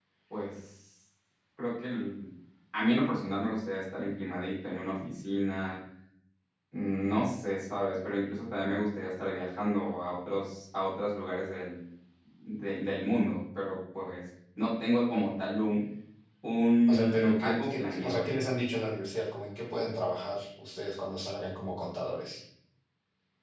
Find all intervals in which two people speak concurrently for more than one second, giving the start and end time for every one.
16.9-18.2

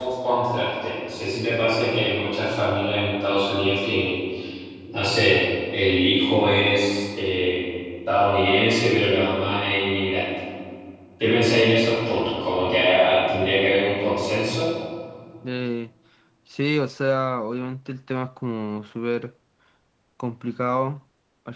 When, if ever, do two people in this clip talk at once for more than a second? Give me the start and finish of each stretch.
none

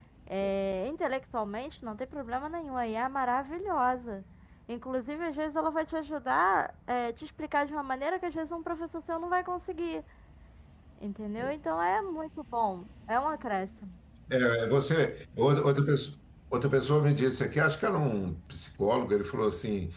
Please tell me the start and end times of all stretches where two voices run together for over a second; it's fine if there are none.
none

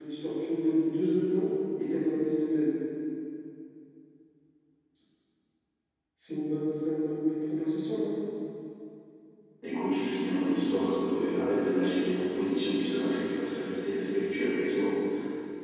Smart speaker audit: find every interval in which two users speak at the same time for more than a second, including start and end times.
none

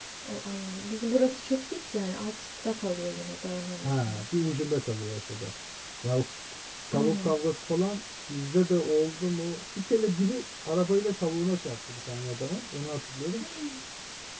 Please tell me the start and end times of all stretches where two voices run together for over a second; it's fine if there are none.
none

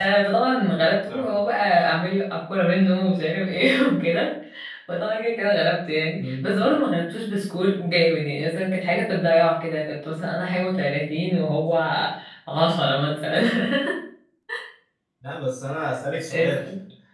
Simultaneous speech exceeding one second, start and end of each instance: none

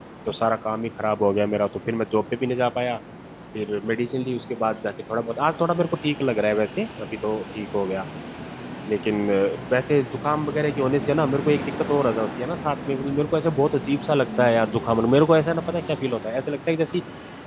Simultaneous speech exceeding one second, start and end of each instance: none

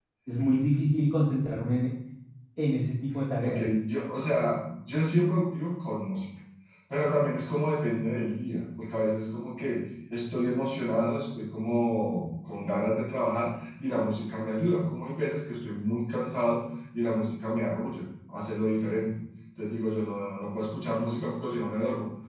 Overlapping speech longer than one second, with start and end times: none

